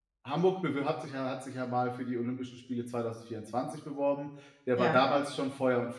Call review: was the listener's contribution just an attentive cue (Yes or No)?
Yes